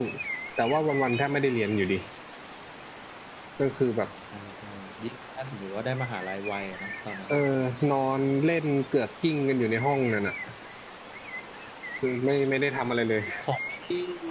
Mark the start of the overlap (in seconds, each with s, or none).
none